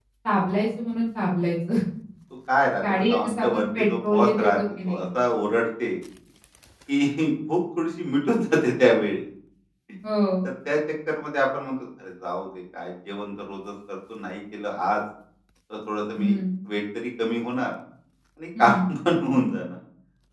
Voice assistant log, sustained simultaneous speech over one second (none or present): present